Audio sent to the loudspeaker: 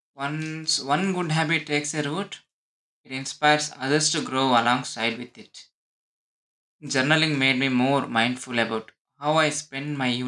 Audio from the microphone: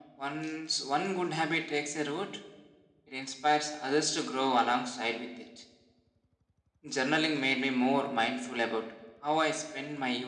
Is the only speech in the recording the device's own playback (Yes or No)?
Yes